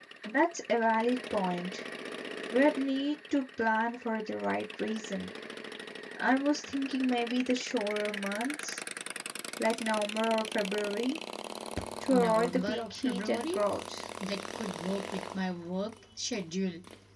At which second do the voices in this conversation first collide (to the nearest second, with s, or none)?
12 s